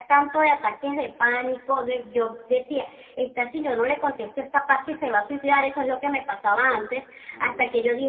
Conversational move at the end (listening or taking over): listening